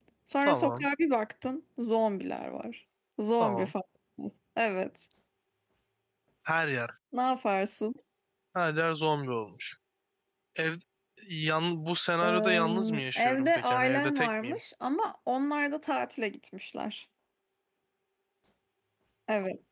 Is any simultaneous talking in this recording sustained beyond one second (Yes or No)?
Yes